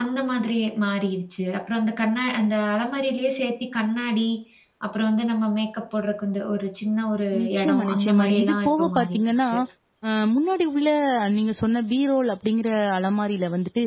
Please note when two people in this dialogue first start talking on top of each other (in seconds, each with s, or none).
7.3 s